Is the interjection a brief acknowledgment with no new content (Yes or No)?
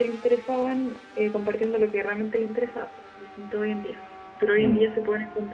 Yes